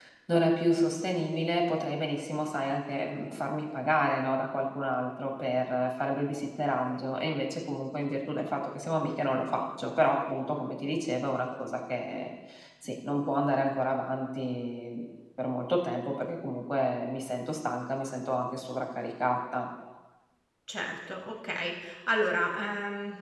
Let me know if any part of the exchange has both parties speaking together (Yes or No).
No